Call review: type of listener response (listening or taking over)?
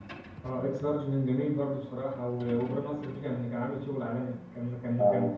listening